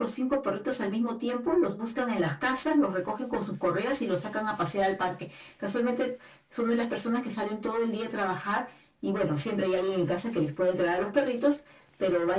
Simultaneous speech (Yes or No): No